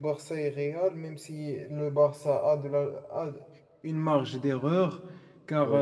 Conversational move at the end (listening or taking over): listening